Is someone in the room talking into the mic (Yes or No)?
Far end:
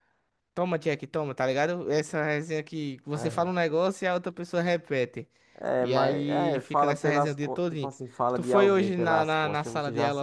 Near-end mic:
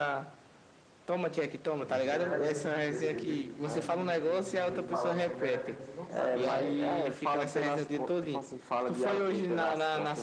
Yes